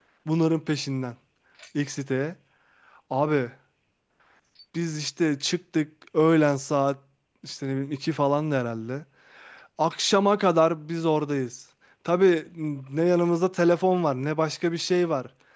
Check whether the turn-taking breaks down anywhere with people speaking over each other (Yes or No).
No